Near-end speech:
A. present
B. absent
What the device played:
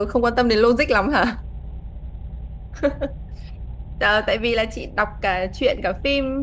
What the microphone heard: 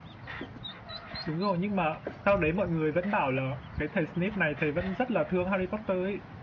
A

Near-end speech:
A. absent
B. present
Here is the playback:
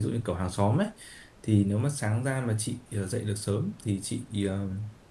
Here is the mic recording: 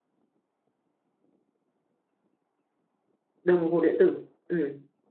B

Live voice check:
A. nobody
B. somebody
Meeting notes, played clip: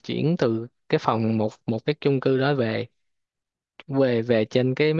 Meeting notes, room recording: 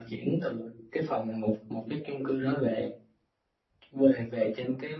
A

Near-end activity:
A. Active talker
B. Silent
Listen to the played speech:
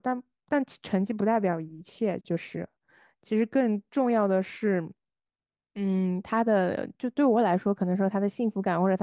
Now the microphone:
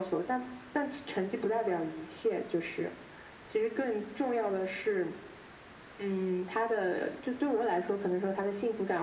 B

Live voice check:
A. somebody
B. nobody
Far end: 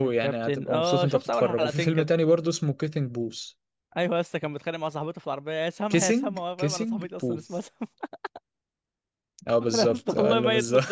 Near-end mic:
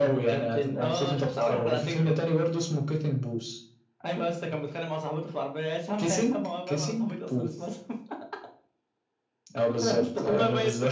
B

